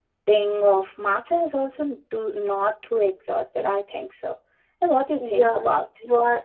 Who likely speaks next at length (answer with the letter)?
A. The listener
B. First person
A